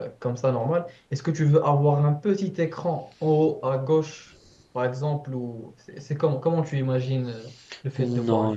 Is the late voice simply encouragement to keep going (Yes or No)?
No